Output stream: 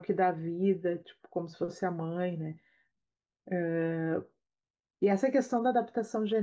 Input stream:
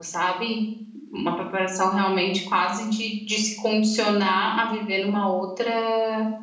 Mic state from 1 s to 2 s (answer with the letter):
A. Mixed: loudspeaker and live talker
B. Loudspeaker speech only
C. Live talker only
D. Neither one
C